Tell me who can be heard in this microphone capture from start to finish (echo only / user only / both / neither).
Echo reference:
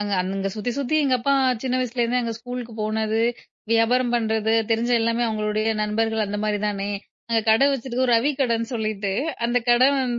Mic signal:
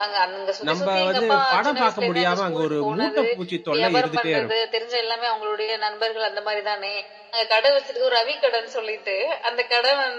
both